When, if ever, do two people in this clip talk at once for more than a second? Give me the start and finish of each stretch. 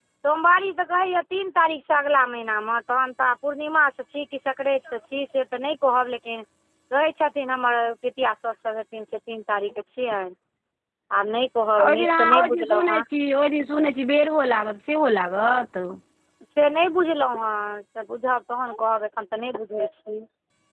11.8-13.0

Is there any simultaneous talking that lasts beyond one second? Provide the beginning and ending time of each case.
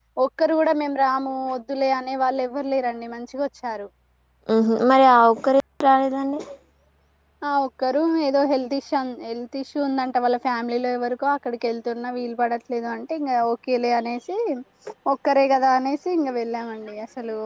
none

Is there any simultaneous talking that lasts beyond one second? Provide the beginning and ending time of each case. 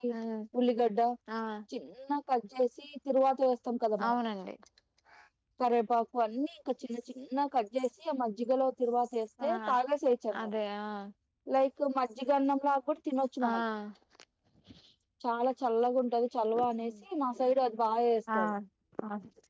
none

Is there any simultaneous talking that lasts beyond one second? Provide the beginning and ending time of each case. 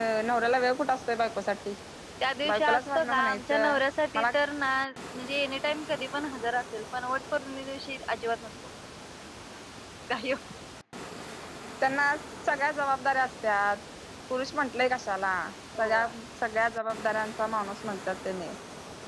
2.5-3.8

